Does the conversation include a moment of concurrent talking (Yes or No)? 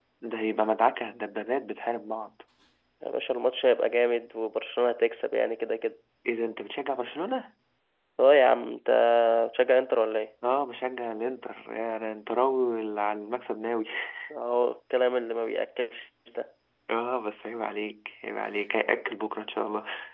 No